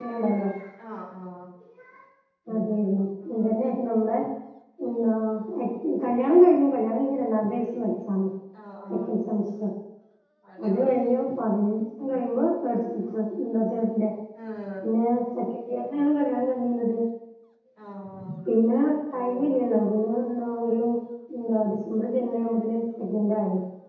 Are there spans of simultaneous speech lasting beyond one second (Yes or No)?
No